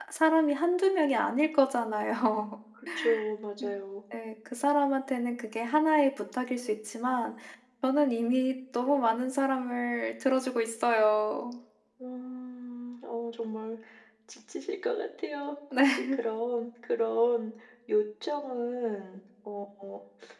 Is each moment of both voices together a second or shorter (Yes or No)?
Yes